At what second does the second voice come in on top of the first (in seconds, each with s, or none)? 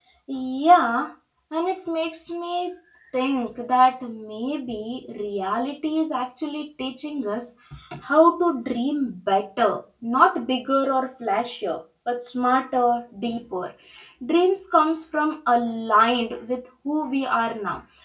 none